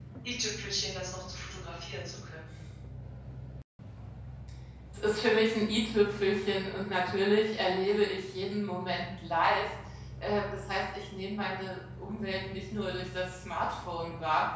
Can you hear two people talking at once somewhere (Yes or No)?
No